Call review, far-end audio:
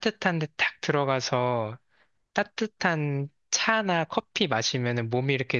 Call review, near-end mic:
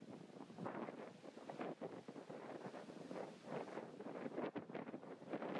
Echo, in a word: none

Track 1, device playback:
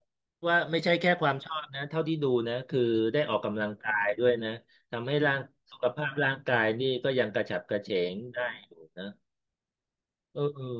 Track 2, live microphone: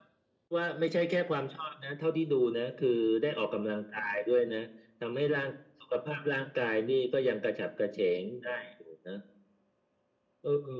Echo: present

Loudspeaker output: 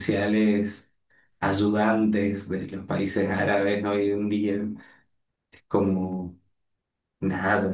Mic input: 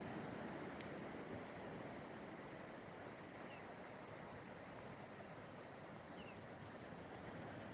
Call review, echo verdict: none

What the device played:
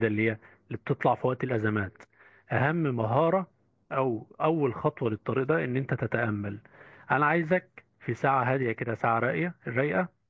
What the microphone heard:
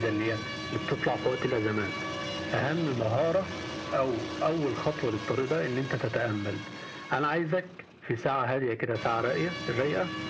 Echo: present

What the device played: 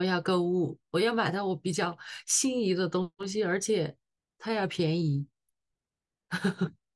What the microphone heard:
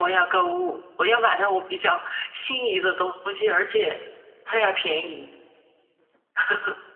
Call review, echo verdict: present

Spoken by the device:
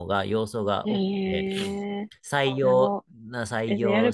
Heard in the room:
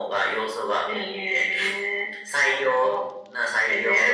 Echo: present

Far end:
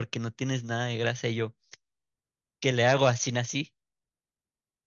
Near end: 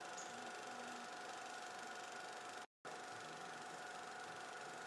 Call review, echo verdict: none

